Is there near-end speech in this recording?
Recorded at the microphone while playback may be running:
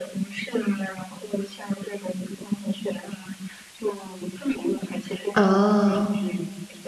Yes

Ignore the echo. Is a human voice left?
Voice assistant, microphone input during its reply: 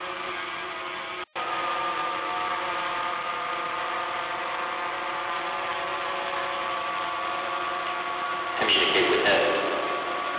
Yes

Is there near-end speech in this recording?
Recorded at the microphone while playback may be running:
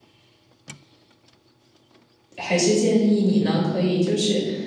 Yes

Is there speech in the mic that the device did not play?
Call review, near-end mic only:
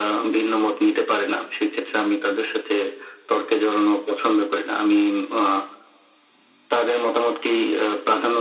No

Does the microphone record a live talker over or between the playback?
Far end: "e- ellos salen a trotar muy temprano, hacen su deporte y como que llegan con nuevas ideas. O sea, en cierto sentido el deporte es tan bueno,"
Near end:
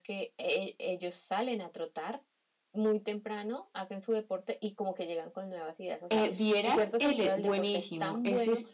Yes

